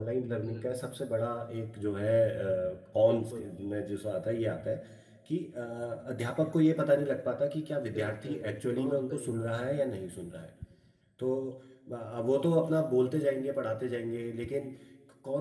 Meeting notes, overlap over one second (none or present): present